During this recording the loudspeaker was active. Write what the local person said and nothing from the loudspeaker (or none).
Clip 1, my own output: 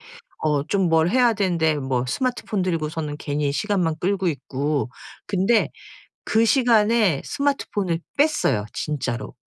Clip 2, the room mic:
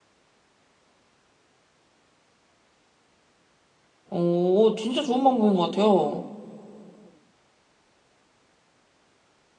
오 진짜 좋은 방법인 것 같아요.